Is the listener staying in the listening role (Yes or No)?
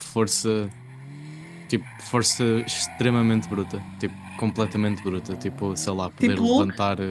Yes